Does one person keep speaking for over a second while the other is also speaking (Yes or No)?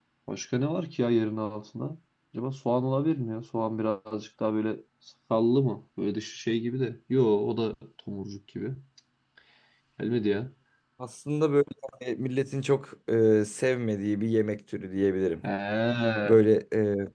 No